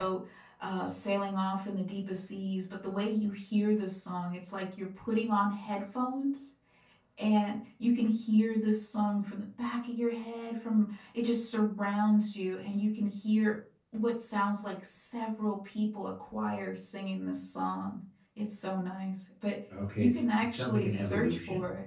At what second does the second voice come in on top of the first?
20 s

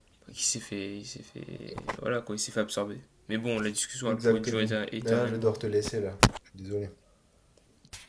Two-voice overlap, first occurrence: 4 s

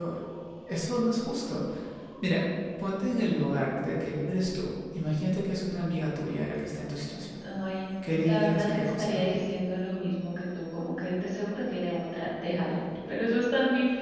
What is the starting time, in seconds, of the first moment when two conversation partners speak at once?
8 s

